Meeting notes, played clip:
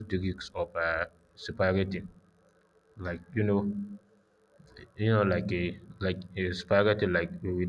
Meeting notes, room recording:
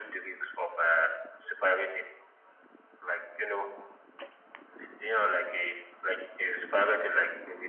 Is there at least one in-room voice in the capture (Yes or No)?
No